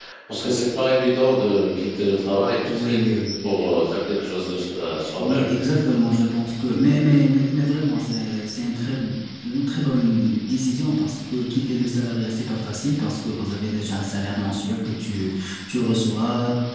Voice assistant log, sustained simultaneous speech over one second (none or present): none